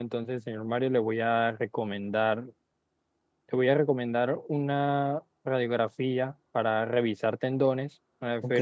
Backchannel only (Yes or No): Yes